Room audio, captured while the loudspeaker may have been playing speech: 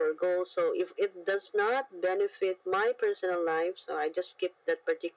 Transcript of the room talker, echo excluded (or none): none